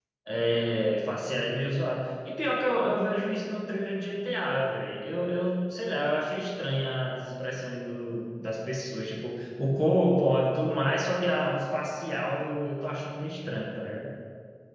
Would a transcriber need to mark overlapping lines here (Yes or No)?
No